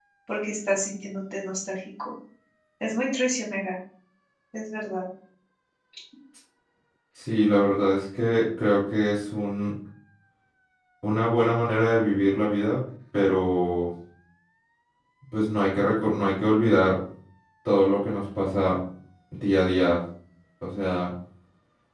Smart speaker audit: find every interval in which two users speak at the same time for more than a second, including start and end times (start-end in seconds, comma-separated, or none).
none